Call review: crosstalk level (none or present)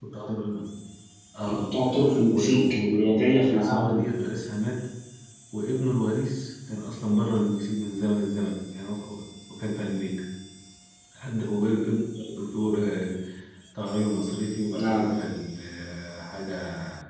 present